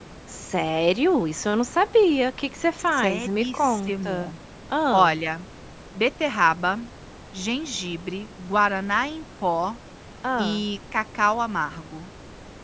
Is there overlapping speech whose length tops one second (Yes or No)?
Yes